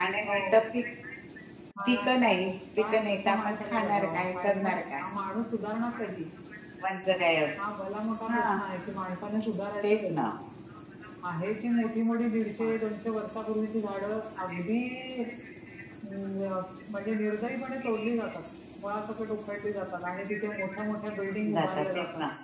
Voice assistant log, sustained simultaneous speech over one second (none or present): present